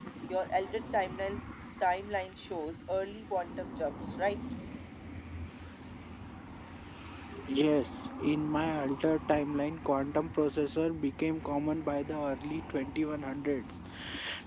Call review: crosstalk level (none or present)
none